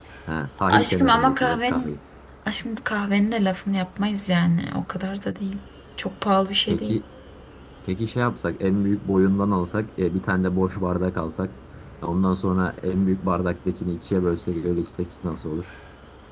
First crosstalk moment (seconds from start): 0.7 s

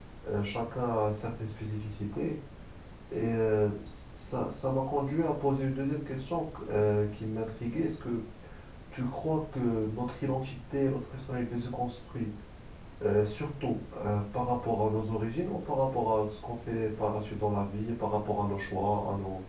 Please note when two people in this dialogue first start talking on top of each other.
none

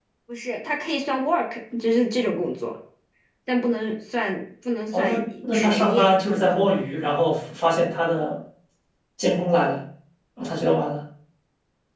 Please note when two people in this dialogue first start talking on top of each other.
4.9 s

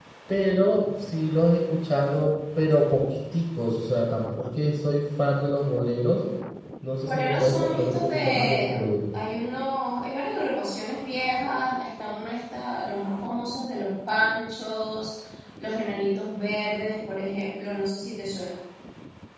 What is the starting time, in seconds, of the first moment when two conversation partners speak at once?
7.1 s

